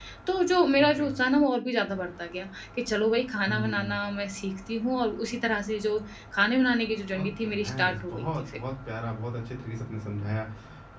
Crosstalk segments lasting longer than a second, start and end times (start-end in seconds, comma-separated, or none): 7.2-8.6